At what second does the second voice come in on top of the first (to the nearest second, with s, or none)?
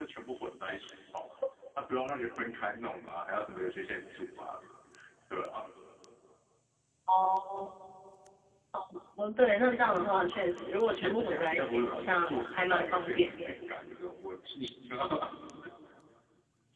11 s